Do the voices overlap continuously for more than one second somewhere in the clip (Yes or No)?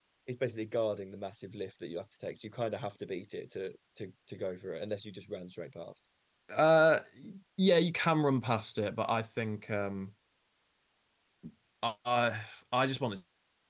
No